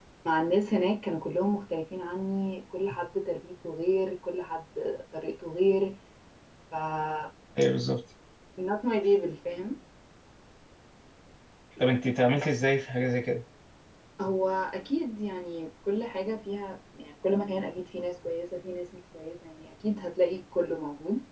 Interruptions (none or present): none